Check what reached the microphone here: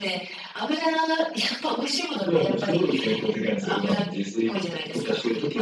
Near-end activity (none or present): none